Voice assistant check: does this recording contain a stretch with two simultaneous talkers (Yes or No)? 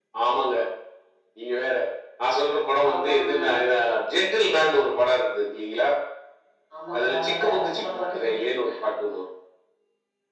Yes